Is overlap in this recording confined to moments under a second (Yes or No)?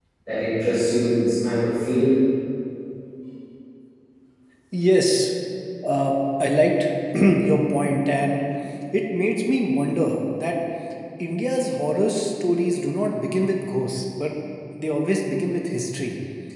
Yes